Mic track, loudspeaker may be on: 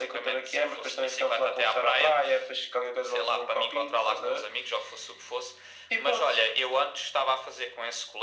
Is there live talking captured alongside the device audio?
No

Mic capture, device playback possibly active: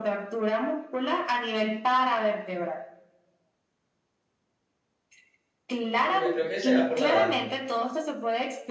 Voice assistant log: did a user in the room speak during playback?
Yes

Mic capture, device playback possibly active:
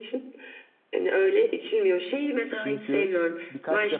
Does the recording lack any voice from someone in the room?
No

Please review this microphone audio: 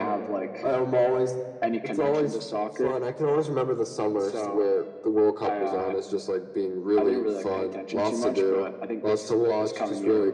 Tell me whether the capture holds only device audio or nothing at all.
Yes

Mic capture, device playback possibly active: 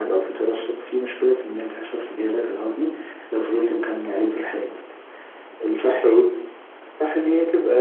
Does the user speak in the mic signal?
No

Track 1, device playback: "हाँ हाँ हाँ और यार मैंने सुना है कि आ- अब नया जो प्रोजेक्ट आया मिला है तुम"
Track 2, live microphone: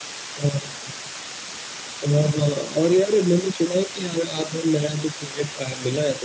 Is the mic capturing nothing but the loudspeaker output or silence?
Yes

